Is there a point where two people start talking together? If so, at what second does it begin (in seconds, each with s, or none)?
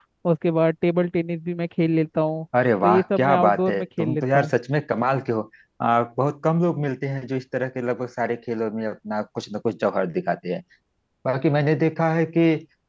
2.8 s